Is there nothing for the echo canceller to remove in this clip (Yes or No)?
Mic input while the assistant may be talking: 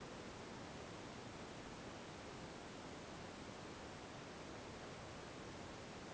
Yes